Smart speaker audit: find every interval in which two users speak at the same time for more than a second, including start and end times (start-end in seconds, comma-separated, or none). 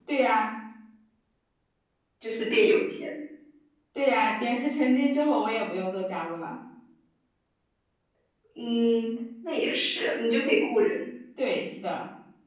none